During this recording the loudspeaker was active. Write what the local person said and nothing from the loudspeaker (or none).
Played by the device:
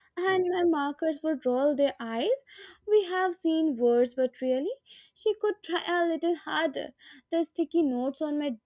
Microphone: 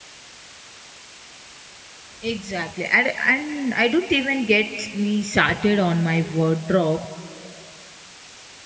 Exactly. And, and I don't even get me started on my wardrobe.